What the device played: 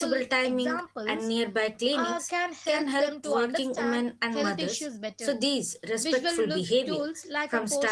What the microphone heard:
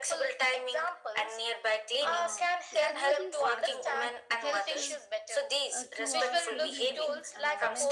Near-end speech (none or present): present